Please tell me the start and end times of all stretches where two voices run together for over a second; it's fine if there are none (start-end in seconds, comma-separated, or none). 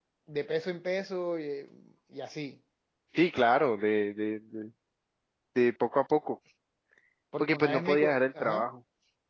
7.4-8.6